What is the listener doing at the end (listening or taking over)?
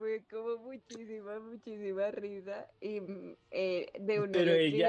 taking over